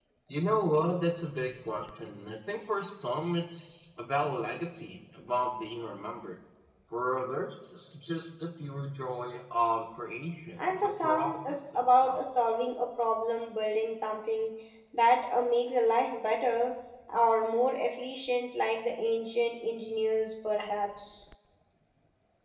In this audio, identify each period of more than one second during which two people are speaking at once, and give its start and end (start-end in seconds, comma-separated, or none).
10.6-12.2